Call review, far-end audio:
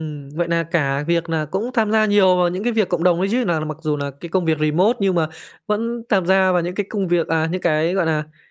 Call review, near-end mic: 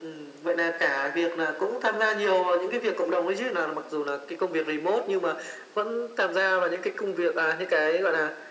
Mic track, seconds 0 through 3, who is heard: echo only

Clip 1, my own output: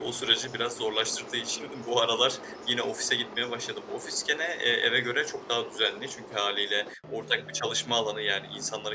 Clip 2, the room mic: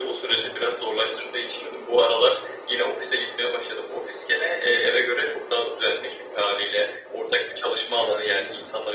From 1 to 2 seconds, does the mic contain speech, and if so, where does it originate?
echo only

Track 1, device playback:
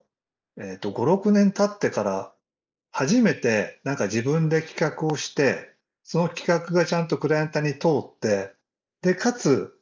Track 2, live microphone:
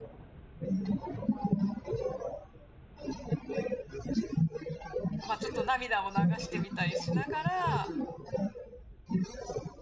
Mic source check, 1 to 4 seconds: echo only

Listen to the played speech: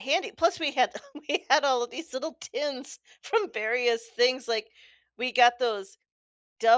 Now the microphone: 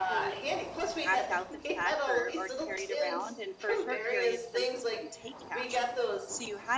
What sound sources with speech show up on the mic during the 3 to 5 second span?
both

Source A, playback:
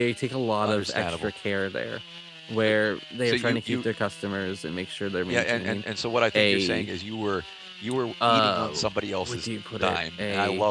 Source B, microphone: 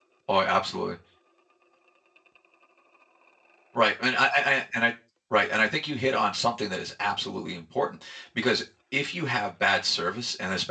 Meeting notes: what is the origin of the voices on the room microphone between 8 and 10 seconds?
user only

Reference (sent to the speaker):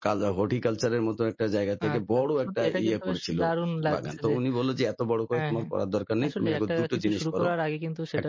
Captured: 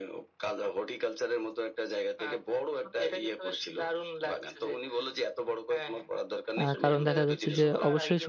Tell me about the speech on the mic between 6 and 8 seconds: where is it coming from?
both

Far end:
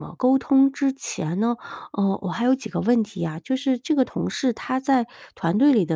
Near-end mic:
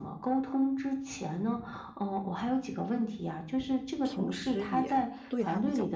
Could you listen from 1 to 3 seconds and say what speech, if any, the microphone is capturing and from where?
echo only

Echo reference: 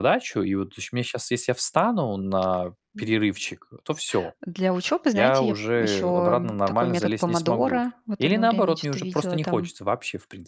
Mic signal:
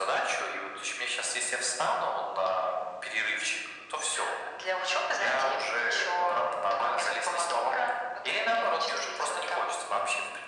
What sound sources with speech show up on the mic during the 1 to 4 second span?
echo only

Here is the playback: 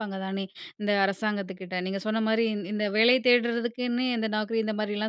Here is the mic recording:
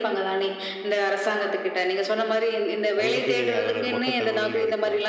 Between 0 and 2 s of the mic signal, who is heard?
echo only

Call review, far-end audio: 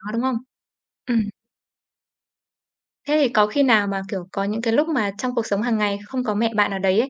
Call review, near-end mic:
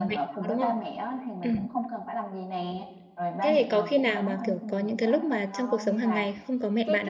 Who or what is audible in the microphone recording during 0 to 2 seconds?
both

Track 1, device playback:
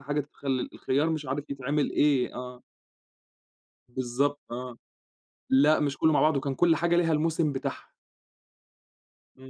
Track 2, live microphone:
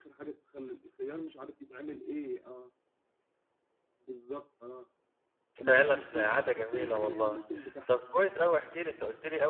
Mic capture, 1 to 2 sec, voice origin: echo only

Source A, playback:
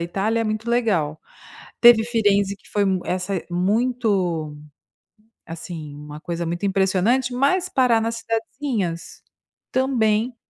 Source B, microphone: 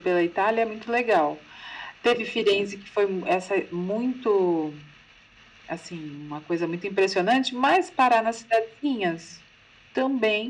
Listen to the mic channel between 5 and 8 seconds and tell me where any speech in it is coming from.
echo only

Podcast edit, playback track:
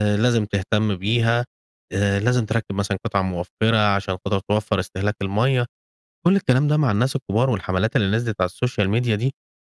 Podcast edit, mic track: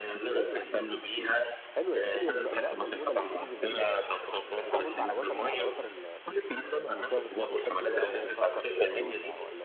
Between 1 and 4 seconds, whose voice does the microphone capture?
both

